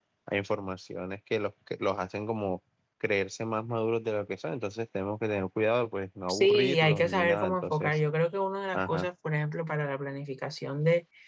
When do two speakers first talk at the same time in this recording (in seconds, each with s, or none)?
6.3 s